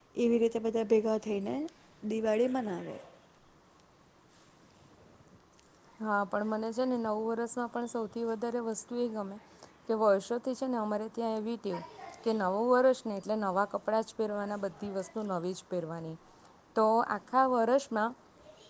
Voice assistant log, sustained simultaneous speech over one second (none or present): none